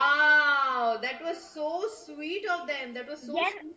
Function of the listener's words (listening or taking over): taking over